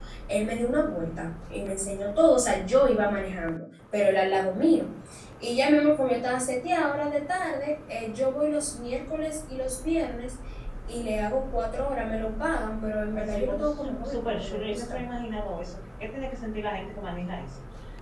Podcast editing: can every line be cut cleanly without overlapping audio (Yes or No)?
No